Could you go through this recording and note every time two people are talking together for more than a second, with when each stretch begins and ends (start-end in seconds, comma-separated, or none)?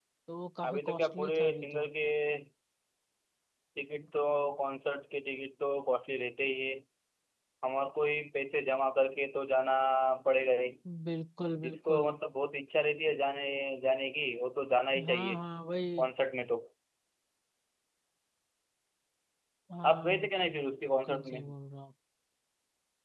0.6-1.9